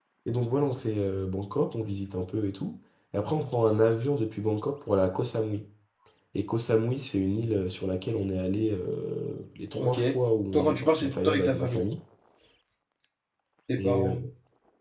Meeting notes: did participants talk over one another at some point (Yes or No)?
Yes